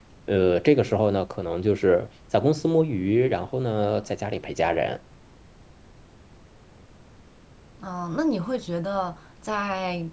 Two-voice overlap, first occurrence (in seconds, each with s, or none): none